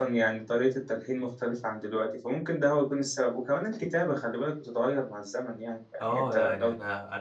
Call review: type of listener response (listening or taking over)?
taking over